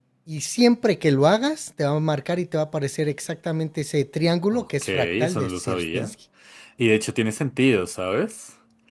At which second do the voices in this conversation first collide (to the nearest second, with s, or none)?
5 s